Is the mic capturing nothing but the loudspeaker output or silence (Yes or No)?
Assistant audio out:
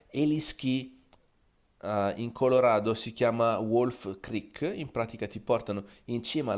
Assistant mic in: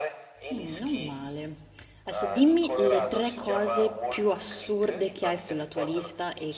No